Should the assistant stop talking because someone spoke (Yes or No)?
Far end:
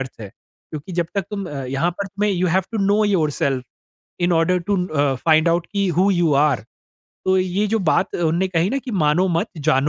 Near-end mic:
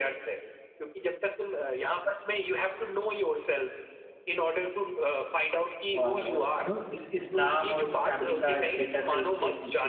Yes